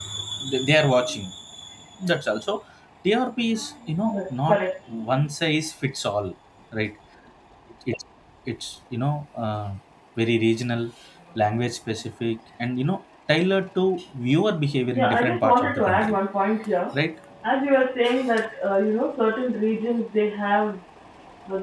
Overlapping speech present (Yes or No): Yes